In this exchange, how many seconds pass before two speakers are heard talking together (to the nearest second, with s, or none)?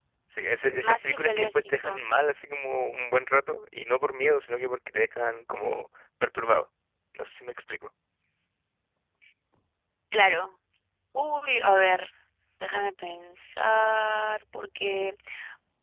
1 s